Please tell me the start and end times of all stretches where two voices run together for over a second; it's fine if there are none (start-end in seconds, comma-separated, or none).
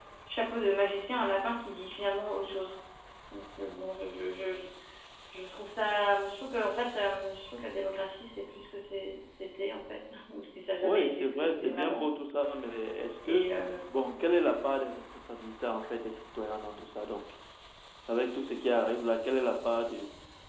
10.8-12.0